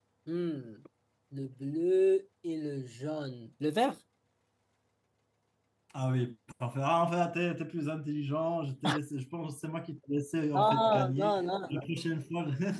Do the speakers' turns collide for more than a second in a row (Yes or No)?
Yes